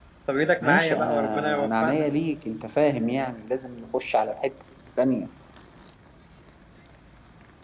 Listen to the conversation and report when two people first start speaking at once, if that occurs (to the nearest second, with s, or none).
1 s